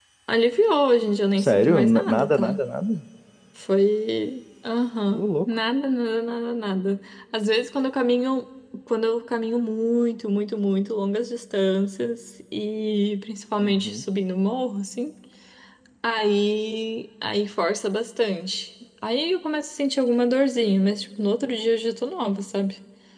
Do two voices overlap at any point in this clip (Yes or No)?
Yes